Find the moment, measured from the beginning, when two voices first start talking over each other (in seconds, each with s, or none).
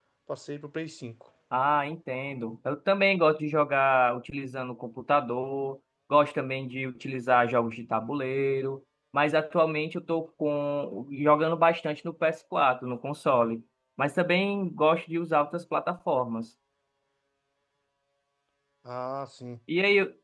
none